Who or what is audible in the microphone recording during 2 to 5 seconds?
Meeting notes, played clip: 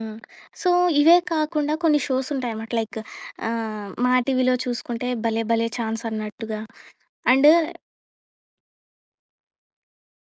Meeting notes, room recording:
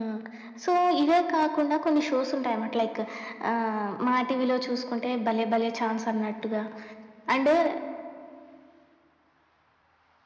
echo only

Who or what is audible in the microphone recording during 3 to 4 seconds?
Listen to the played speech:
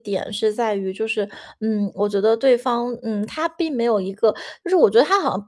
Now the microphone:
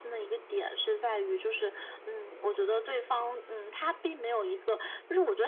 echo only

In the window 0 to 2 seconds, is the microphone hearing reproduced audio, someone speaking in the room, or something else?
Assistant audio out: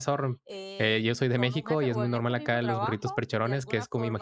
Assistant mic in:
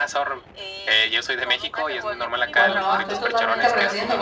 echo only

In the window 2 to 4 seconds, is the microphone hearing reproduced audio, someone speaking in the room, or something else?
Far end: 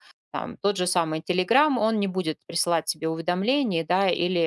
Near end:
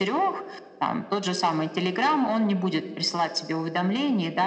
echo only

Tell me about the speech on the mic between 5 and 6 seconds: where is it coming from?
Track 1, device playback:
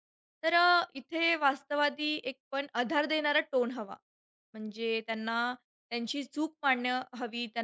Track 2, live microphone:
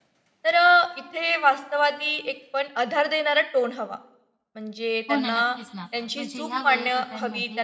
both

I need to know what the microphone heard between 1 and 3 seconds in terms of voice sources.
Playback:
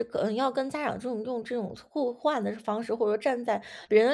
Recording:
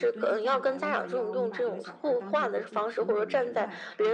both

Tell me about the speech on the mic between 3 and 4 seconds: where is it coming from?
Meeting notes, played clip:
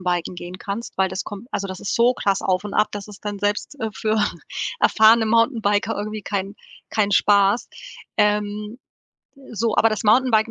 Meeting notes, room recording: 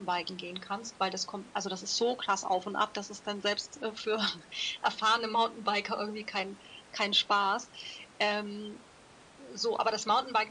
echo only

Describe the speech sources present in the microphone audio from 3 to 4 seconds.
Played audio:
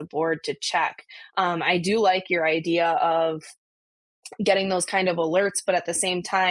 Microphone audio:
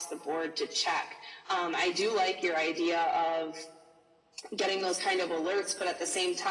echo only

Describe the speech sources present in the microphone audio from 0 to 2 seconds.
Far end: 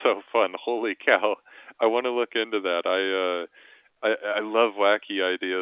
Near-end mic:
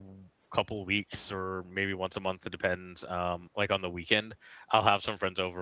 user only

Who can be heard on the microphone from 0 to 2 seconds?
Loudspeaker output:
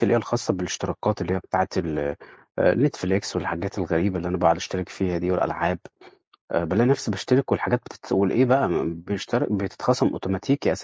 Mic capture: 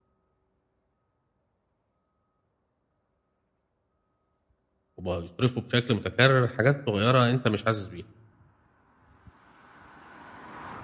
neither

